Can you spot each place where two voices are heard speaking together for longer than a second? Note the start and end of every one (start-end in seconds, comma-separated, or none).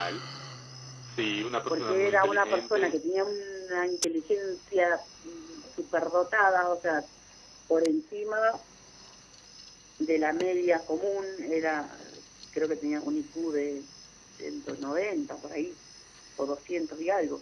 1.7-3.0